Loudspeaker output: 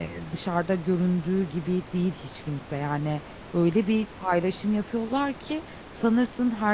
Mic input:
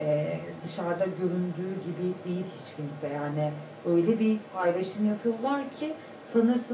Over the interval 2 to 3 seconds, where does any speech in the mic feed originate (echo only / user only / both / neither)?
echo only